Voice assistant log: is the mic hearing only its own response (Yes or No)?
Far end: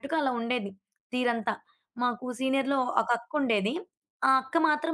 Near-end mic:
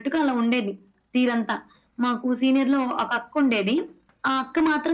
Yes